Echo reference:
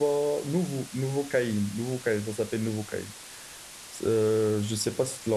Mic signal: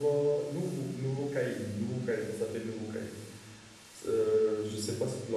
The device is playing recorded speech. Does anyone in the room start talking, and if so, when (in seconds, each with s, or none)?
none